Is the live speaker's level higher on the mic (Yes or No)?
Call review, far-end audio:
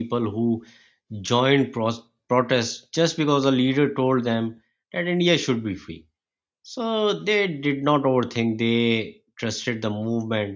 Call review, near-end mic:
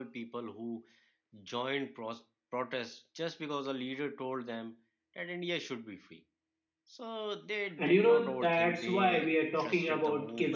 Yes